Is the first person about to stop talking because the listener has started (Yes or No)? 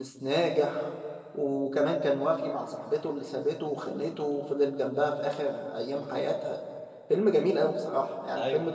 No